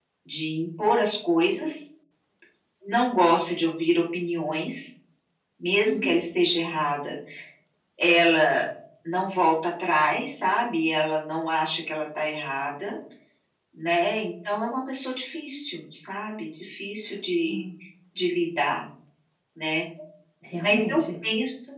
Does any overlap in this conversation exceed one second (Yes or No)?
No